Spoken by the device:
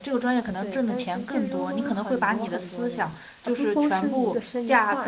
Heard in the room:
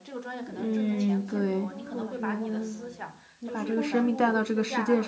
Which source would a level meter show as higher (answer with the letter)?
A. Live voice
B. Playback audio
A